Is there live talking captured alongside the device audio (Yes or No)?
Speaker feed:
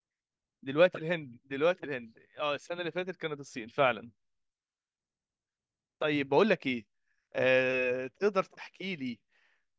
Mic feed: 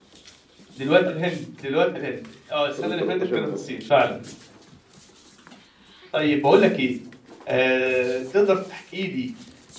Yes